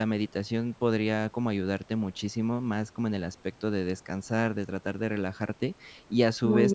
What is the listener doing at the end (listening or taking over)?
listening